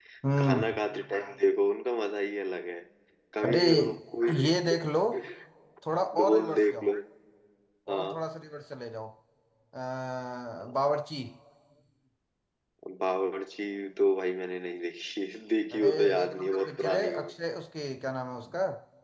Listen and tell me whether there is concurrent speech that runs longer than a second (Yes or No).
Yes